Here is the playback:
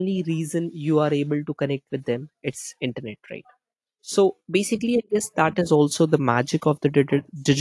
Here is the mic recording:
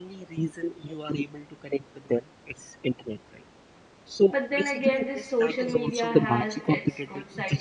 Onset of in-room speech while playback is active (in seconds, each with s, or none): 4.3 s